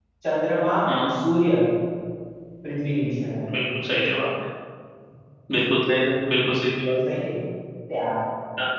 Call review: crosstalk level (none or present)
none